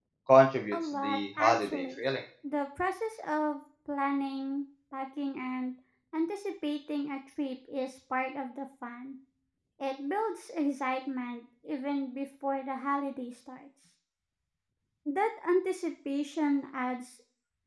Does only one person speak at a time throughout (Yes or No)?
No